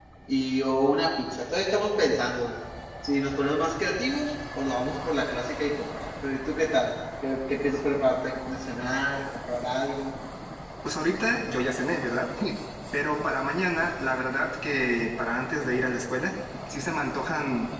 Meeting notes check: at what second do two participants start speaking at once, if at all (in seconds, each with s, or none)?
none